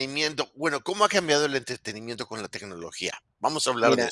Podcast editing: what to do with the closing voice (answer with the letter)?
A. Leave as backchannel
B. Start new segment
B